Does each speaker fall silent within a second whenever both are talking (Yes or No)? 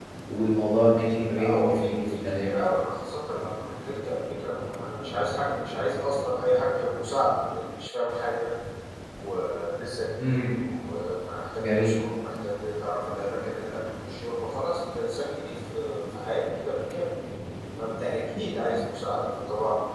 No